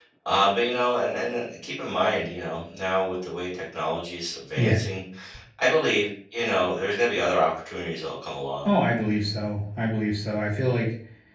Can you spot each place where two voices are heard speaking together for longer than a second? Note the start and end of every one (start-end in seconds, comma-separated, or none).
none